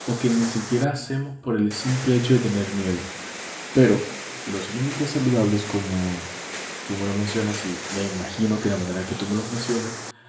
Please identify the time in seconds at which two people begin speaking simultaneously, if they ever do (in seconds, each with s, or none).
none